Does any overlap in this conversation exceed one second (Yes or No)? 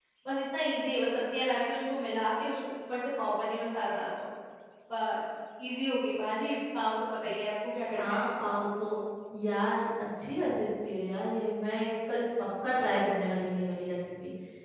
No